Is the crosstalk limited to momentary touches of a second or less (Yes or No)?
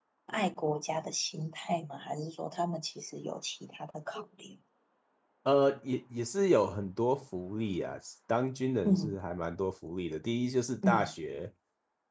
Yes